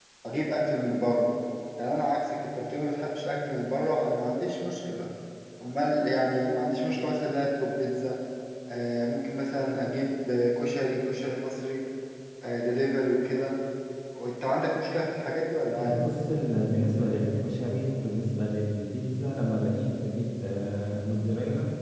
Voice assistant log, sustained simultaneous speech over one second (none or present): none